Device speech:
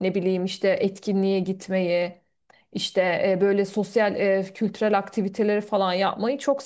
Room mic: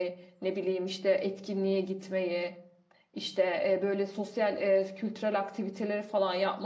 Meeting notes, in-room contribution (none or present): none